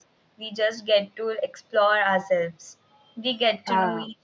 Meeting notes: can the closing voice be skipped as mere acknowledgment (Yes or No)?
Yes